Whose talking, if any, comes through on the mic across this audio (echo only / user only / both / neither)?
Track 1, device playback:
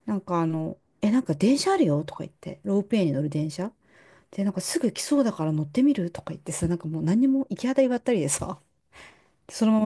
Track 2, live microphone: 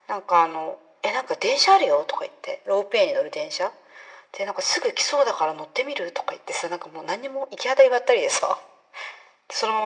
echo only